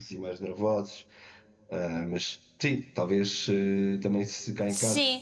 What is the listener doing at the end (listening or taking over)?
listening